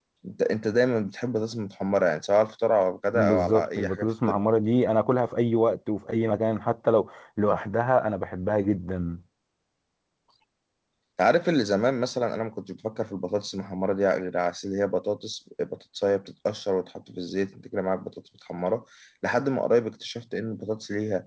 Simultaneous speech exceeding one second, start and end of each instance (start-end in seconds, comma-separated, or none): 3.1-4.4